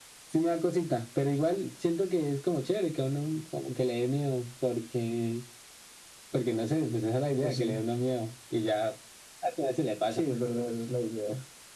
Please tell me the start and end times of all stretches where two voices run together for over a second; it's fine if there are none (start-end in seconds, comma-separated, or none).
none